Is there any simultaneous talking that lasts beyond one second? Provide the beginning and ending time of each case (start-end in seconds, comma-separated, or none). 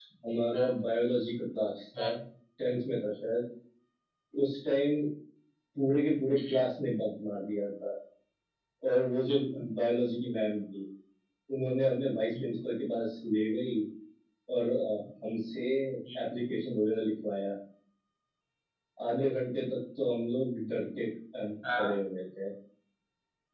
none